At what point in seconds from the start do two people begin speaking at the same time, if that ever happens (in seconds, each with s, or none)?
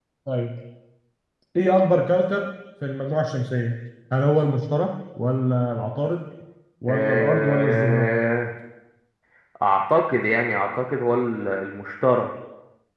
6.9 s